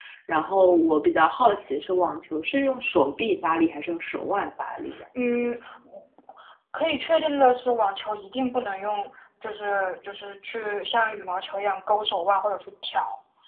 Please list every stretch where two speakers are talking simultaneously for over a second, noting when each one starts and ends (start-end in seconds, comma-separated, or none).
none